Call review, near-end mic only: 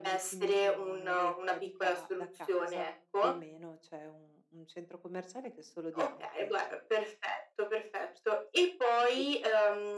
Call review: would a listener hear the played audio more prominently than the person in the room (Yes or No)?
Yes